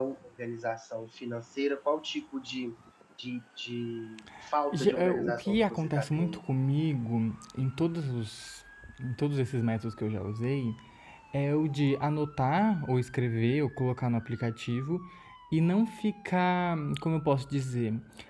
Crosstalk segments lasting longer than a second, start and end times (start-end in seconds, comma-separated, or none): 4.9-6.4